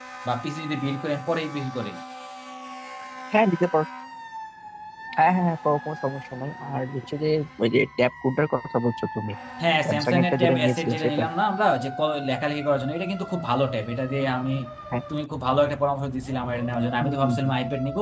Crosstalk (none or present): present